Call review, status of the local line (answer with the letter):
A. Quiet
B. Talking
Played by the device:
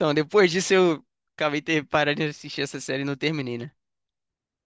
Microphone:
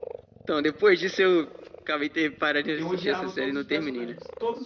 B